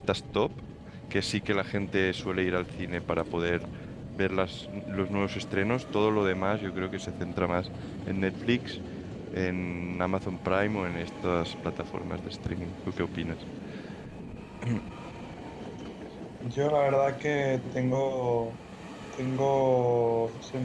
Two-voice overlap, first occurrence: none

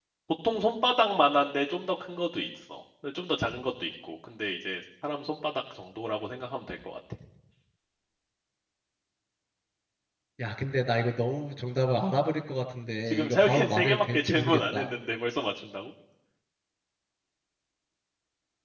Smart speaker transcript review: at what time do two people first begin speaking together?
13 s

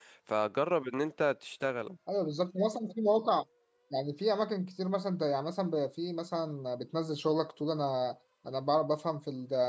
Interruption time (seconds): none

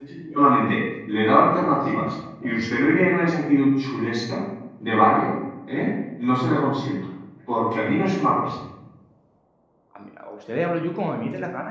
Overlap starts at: none

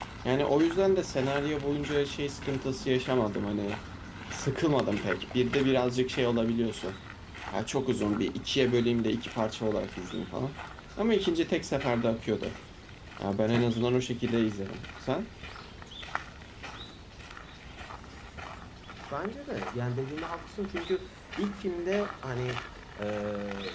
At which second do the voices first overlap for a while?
none

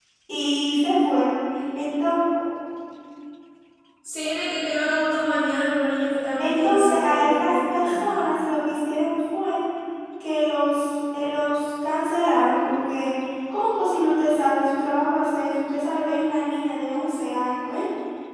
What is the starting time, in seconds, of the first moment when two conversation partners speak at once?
6 s

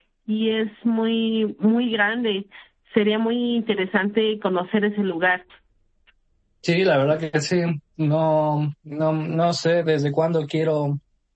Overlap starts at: none

